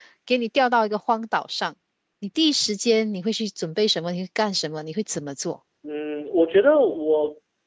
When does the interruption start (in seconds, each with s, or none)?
none